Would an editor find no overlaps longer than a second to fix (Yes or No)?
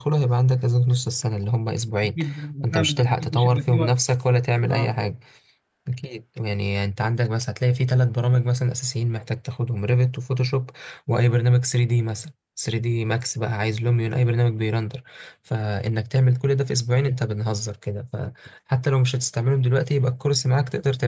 No